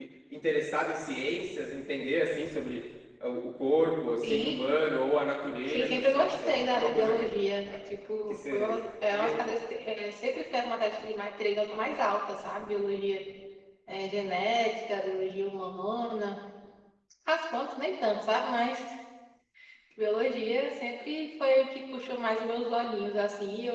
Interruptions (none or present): present